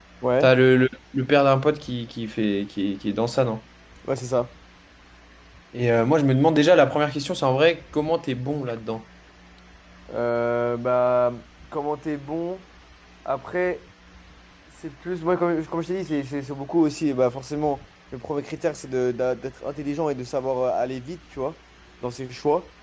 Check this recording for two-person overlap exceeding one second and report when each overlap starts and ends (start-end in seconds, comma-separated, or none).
none